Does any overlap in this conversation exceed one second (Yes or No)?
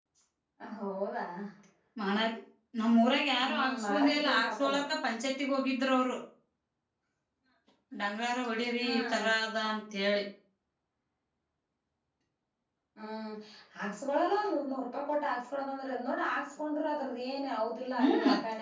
Yes